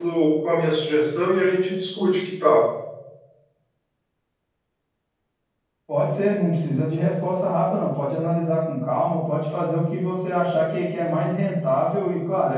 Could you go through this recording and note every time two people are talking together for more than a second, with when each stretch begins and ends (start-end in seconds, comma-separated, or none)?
none